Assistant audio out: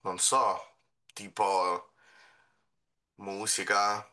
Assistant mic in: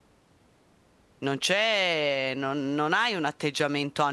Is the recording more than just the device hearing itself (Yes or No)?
Yes